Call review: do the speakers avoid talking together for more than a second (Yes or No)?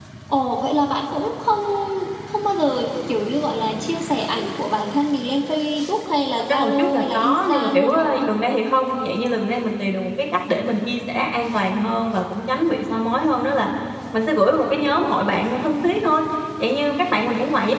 No